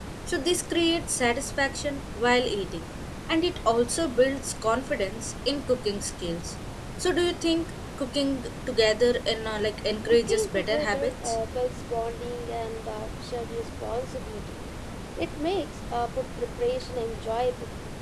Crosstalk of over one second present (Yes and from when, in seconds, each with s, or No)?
Yes, from 10.1 s